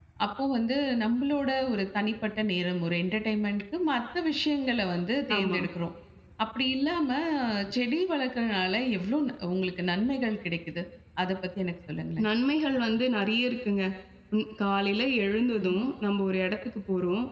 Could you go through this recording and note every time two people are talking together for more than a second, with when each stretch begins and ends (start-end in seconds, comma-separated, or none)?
none